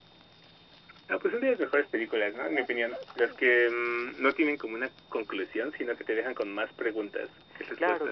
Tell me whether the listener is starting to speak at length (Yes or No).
Yes